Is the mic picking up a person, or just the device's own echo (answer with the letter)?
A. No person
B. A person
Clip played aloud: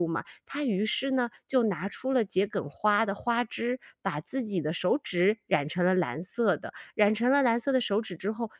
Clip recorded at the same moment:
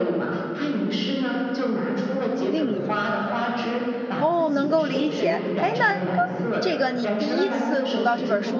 B